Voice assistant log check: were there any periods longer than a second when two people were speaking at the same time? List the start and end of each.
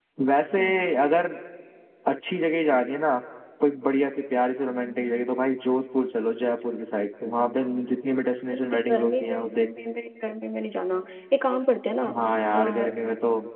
8.5-9.7

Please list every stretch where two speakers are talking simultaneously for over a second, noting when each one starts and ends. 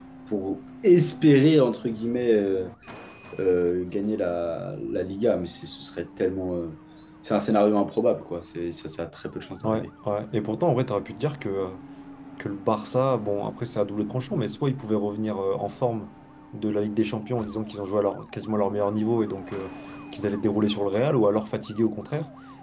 none

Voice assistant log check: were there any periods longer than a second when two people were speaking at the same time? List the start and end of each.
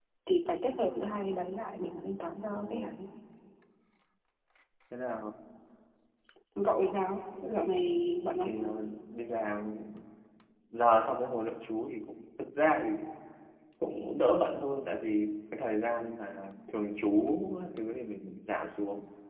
none

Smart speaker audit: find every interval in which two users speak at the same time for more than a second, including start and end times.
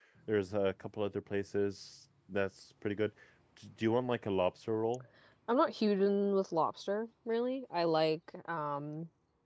none

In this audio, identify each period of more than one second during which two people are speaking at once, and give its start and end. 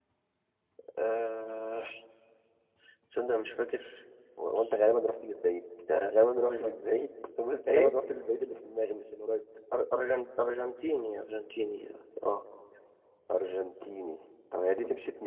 none

